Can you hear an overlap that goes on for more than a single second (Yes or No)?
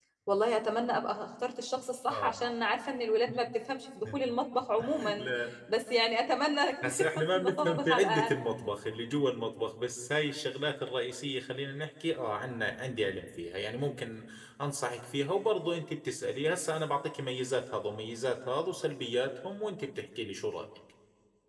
Yes